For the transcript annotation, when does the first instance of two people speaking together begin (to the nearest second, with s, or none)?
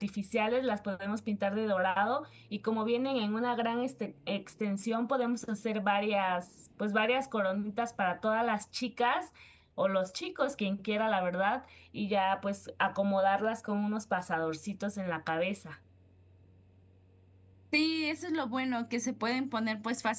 none